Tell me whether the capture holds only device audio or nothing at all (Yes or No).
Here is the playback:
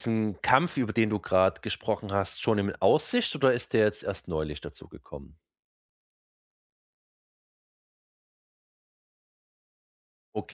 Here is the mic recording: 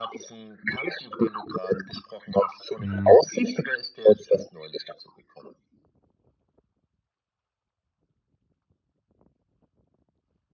No